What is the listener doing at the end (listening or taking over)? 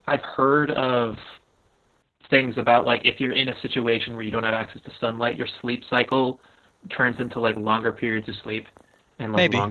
listening